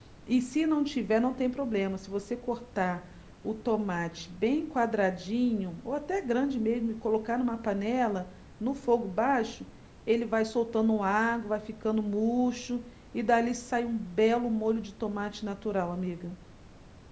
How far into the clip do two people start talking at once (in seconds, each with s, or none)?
none